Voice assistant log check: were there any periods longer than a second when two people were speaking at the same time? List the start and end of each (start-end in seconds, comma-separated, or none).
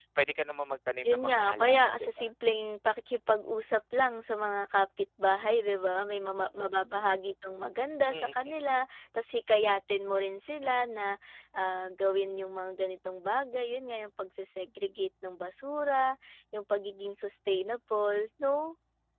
1.0-2.3